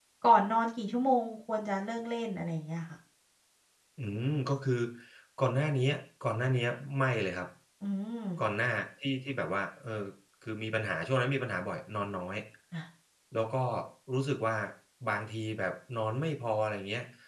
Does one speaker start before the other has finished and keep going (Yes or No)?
No